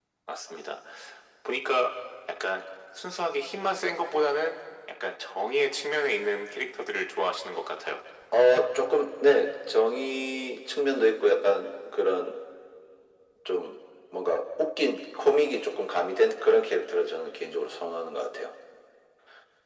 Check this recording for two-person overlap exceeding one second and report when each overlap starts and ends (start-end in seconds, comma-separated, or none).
none